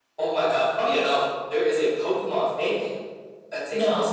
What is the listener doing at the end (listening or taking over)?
listening